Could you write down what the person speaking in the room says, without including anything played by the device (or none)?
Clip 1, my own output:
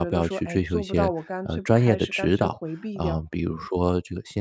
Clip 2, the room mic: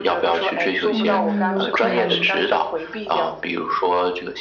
嗯，有可能。